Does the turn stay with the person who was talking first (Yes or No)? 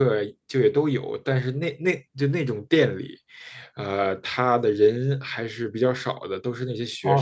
No